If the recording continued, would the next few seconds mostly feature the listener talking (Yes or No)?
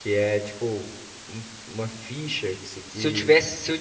Yes